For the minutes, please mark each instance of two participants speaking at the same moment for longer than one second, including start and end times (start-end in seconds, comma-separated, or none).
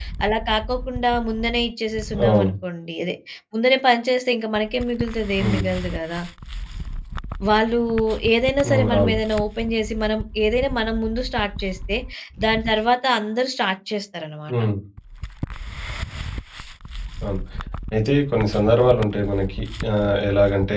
none